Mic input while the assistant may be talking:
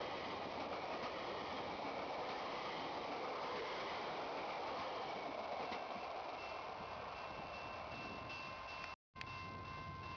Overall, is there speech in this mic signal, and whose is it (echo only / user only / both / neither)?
neither